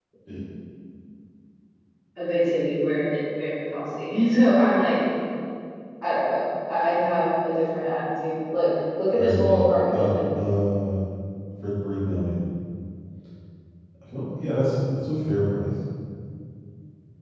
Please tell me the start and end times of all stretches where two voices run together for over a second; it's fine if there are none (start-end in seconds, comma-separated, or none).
9.2-10.4